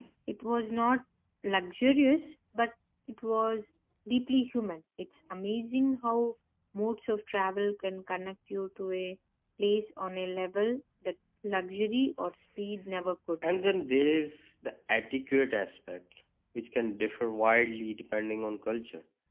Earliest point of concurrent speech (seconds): none

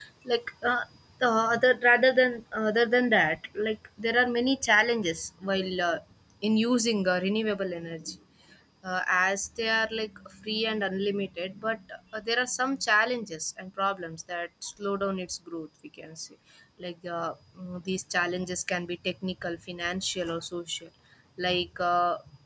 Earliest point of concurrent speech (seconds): none

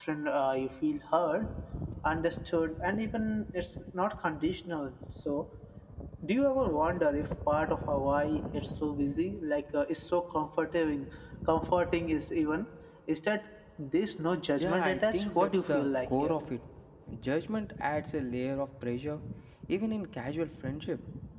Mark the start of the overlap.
14.6 s

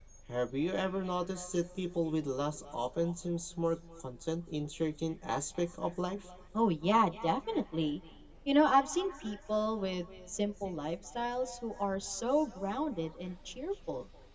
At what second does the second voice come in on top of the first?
none

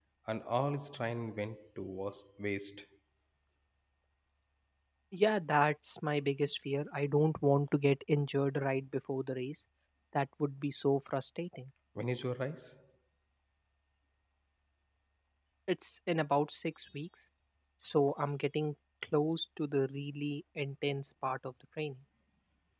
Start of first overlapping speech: none

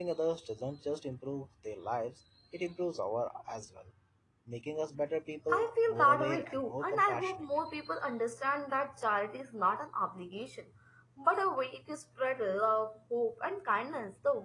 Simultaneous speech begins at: 5.5 s

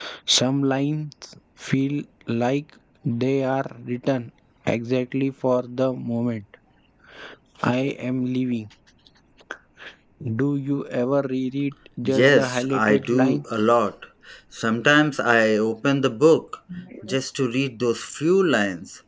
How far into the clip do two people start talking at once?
12.0 s

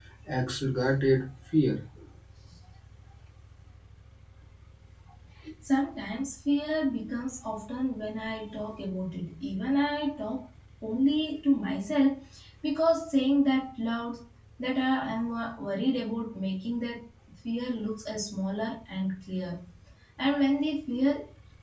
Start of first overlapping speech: none

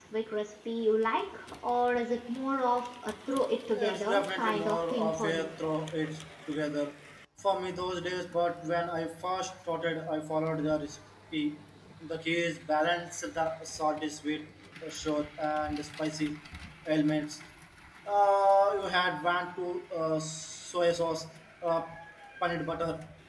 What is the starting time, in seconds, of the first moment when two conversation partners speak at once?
3.8 s

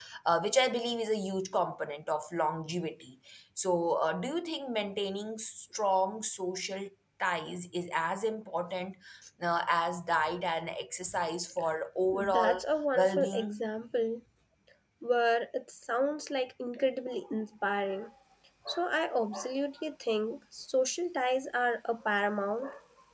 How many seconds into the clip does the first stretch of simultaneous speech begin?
12.1 s

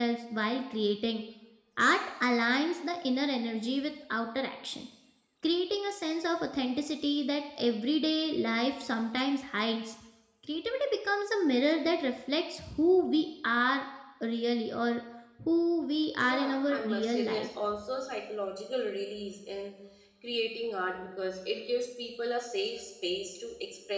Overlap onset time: 16.2 s

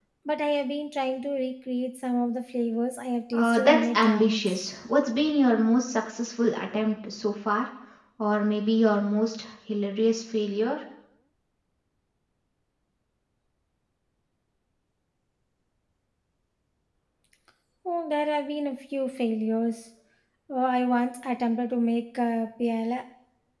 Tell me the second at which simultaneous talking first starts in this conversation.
3.3 s

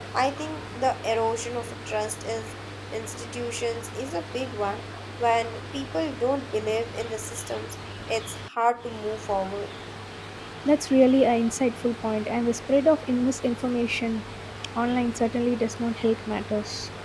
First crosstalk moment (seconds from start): none

